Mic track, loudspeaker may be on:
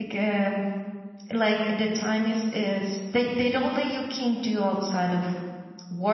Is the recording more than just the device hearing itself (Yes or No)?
Yes